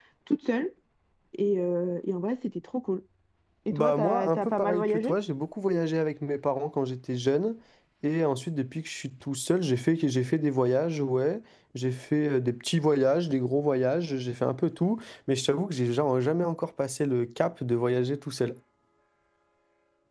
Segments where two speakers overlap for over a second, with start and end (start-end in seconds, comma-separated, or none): 3.7-5.1